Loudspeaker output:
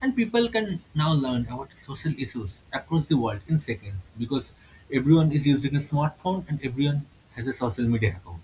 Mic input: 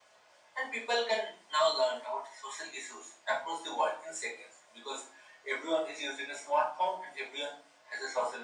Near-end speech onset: none

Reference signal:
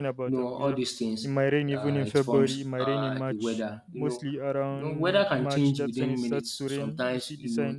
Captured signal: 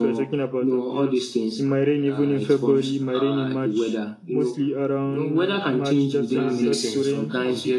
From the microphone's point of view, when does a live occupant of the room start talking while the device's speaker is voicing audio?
6.4 s

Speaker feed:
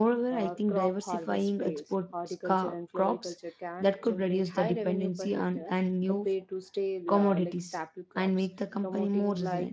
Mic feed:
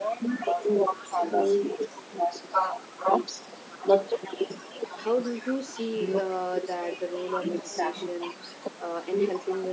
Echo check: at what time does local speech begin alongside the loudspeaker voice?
5.0 s

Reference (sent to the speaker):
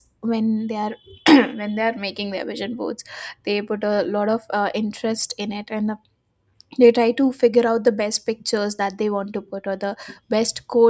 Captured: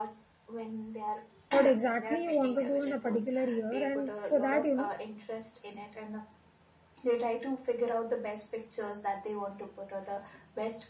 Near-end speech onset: 1.5 s

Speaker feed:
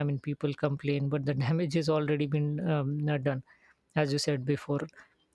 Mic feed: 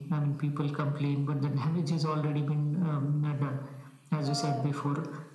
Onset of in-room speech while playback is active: 4.2 s

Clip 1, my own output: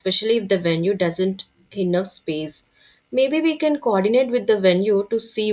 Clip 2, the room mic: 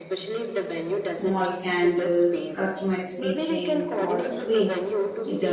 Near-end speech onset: 1.0 s

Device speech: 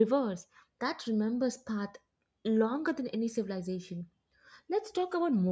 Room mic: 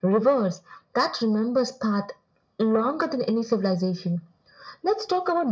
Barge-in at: none

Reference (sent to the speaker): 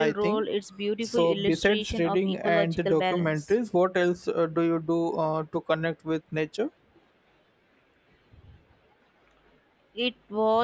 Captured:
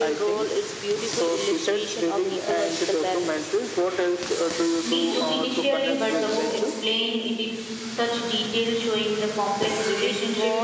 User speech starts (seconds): 4.8 s

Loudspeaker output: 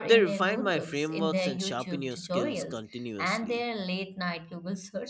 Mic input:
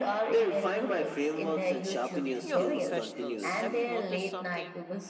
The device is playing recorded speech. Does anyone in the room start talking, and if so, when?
2.1 s

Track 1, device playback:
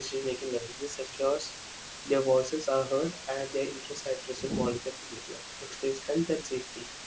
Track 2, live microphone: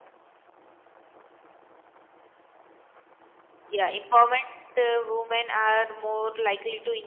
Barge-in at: 3.7 s

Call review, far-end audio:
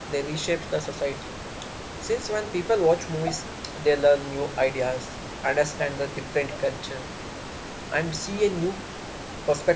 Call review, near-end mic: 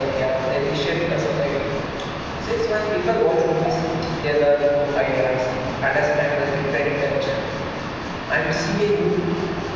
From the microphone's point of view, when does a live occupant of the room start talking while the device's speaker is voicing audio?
none

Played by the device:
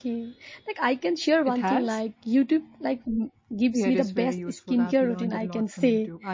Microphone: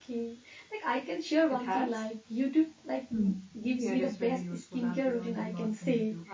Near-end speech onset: 3.1 s

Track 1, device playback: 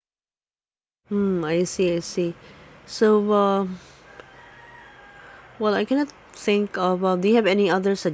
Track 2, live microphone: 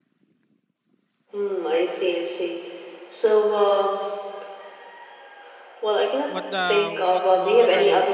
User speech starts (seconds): 6.3 s

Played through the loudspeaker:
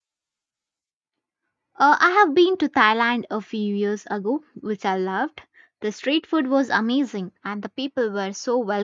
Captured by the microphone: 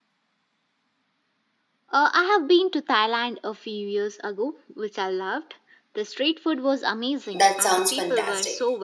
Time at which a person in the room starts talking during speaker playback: 7.3 s

